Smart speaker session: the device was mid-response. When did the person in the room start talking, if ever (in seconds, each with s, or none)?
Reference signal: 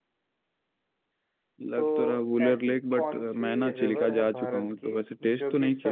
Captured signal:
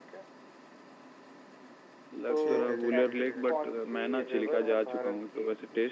2.3 s